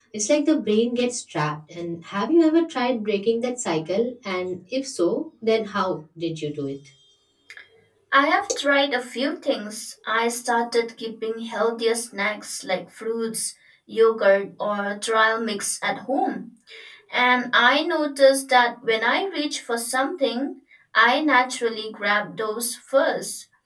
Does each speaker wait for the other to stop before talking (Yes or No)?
Yes